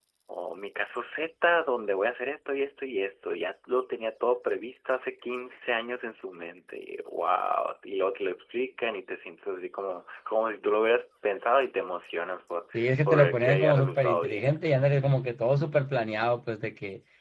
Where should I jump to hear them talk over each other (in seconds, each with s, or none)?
13.1 s